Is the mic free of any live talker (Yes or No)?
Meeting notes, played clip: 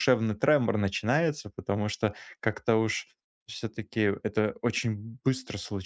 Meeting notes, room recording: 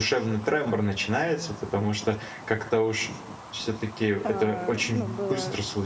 No